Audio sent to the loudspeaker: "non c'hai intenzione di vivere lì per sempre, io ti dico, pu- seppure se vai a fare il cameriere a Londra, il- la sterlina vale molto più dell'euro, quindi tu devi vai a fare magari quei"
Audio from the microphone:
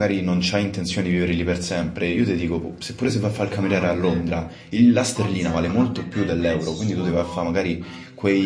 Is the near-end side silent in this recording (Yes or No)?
No